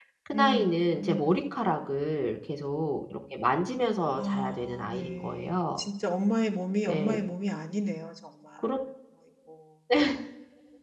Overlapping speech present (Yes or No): Yes